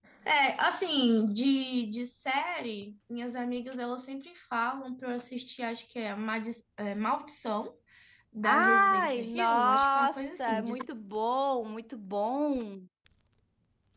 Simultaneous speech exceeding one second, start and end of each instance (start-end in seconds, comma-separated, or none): 8.4-10.8